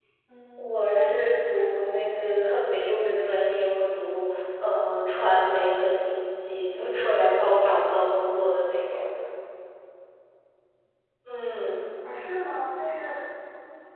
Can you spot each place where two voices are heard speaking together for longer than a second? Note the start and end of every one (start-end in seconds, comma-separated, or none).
0.6-2.2